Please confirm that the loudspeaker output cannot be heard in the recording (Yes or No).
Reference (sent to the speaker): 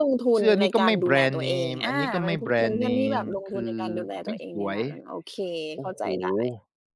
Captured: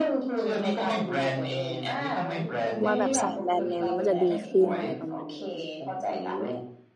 No